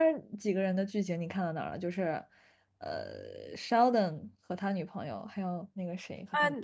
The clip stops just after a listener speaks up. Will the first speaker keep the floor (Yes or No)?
No